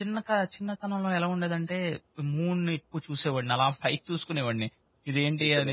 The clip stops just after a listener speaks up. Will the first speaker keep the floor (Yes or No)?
Yes